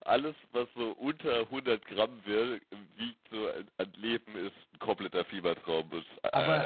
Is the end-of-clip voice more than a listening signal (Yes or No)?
Yes